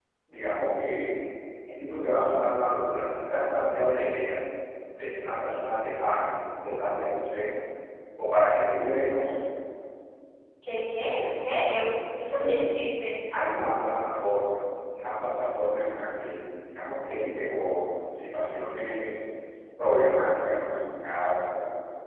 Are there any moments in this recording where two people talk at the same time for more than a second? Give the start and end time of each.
none

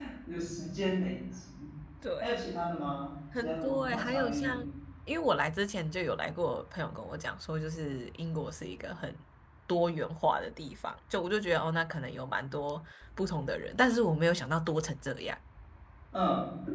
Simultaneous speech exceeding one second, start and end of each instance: 3.4-4.6

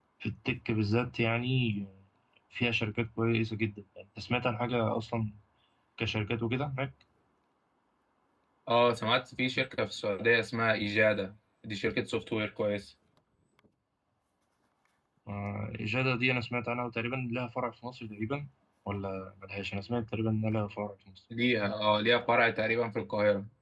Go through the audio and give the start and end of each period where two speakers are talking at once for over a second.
none

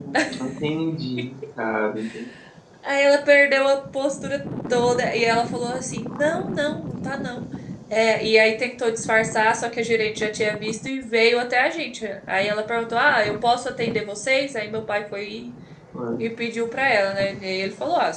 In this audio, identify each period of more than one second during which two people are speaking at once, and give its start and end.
none

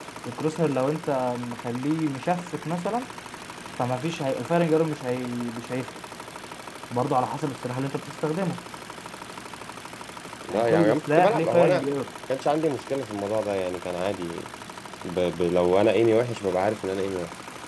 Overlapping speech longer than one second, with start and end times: 10.5-11.8

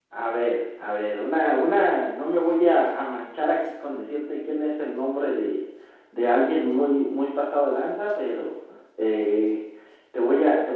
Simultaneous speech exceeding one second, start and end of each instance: none

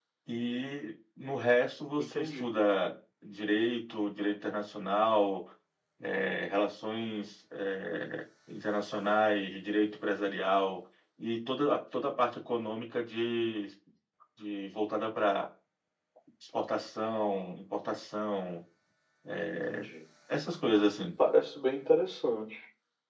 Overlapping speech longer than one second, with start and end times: none

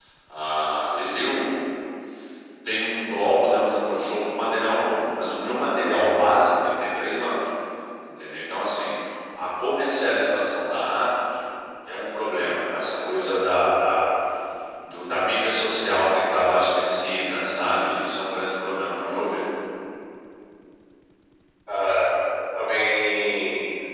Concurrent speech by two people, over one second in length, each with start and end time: none

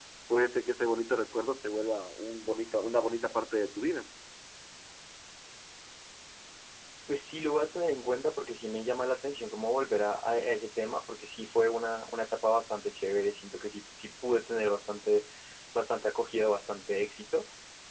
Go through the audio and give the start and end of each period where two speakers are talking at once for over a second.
none

